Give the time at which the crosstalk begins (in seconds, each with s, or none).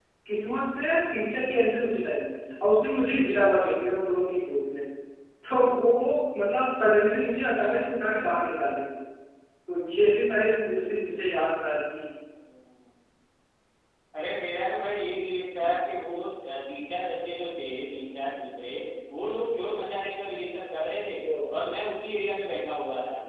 none